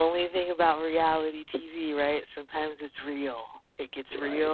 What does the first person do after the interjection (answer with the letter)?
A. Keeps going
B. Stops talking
A